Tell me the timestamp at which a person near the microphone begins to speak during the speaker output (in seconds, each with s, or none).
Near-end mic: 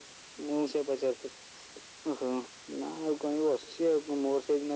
none